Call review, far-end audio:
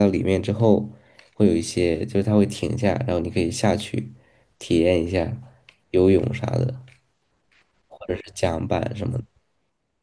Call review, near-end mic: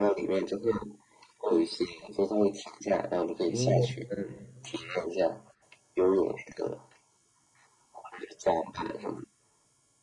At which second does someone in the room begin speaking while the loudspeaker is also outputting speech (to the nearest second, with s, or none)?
3 s